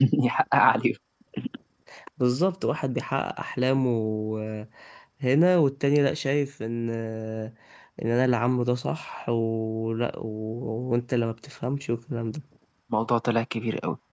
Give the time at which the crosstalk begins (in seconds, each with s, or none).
none